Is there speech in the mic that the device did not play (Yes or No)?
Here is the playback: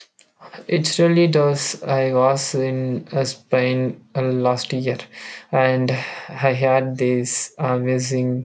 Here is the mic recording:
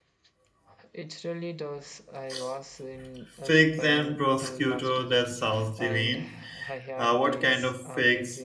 Yes